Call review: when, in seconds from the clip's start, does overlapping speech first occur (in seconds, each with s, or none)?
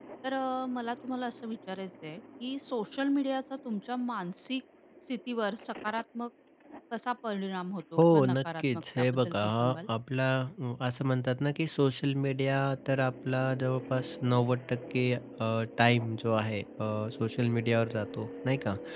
8.0 s